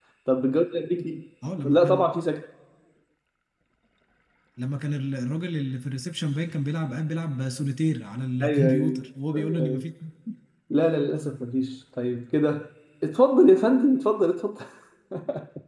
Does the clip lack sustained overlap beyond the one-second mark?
No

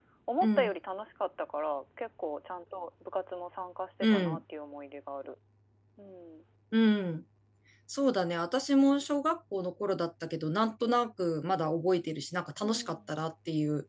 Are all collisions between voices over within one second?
Yes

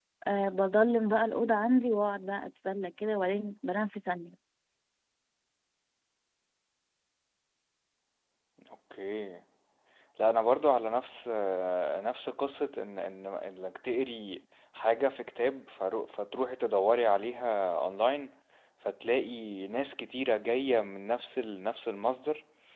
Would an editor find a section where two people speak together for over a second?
No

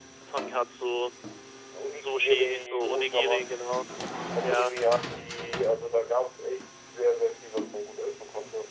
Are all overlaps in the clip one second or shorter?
No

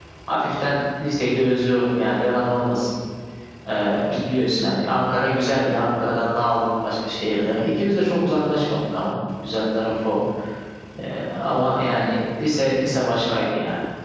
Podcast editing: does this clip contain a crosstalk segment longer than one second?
No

